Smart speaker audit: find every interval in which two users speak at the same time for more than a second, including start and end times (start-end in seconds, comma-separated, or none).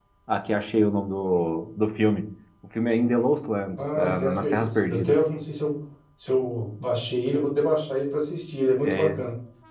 3.8-5.2